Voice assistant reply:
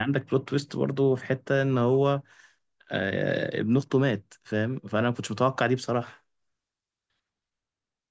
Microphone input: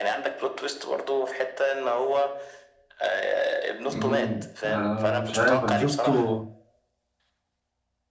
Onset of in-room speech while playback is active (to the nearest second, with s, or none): 4 s